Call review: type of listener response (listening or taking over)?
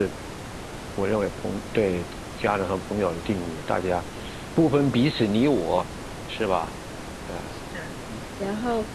taking over